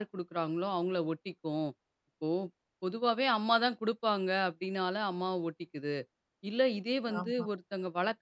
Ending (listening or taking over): listening